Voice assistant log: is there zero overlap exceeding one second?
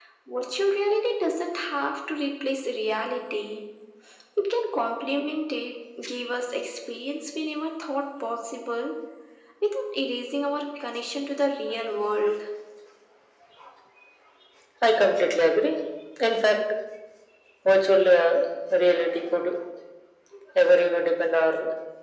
Yes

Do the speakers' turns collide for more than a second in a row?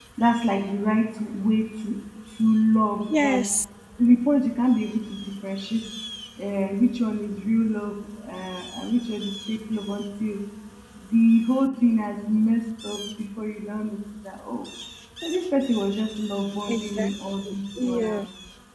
No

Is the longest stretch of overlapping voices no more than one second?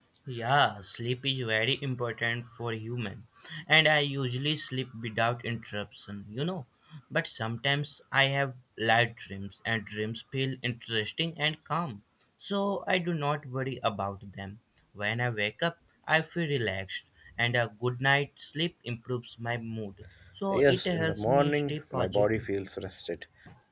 No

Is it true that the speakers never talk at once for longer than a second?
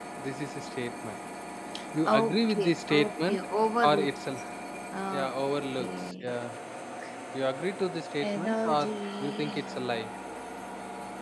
No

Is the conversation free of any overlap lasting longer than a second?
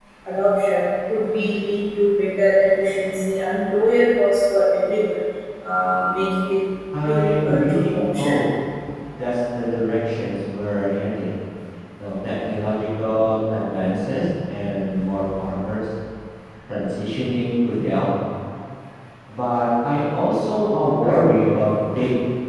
No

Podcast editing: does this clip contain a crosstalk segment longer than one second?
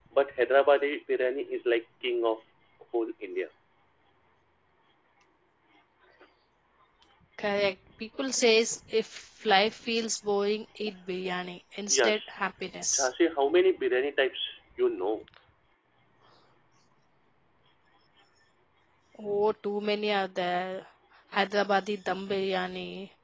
No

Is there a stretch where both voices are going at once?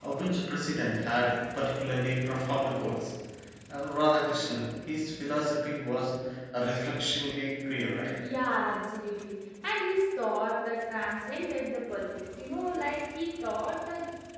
No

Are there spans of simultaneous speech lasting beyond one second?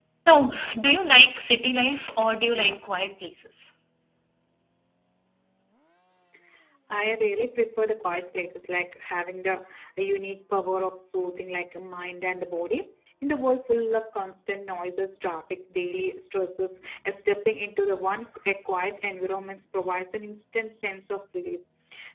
No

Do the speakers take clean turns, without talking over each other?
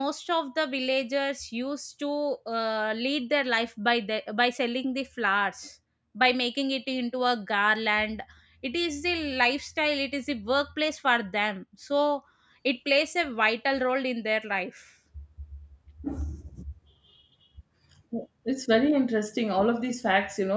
Yes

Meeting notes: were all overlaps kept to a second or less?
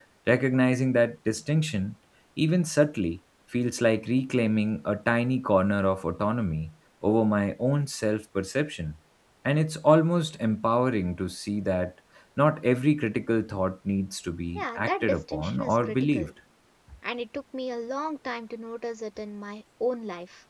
No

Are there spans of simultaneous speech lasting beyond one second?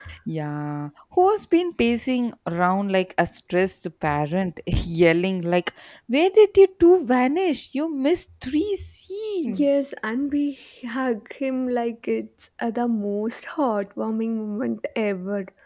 No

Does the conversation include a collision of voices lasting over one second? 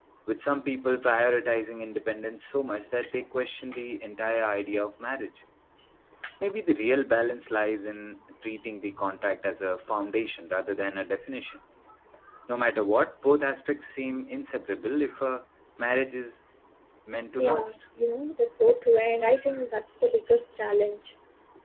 No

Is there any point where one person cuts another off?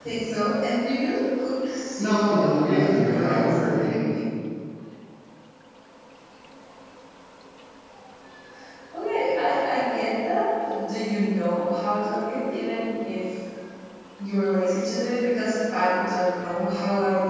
Yes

